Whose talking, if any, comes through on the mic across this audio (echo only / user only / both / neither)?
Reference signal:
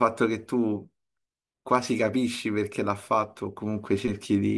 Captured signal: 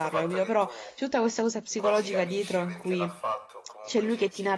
both